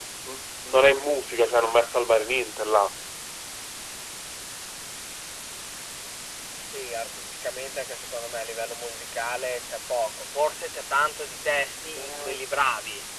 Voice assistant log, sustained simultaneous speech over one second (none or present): none